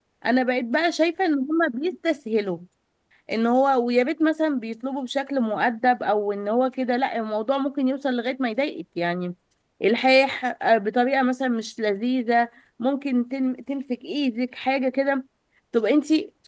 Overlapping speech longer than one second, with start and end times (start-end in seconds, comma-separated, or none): none